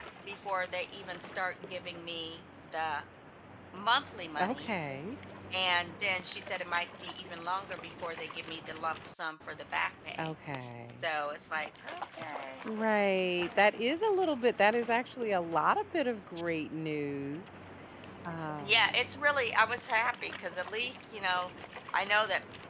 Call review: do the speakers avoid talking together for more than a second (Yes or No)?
Yes